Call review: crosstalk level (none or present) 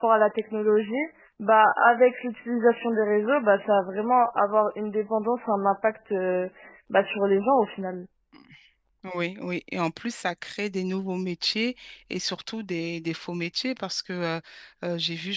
none